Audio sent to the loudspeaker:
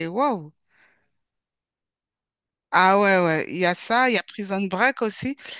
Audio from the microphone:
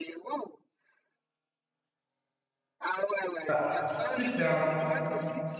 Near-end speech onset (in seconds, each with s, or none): 3.5 s